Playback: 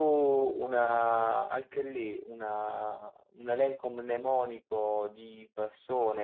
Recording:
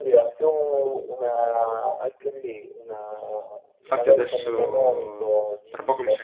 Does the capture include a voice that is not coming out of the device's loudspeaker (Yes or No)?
Yes